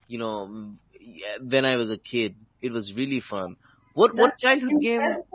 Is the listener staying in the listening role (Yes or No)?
No